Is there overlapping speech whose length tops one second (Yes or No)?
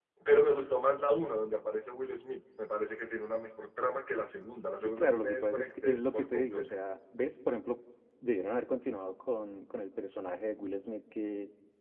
Yes